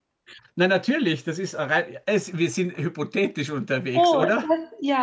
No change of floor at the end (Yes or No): No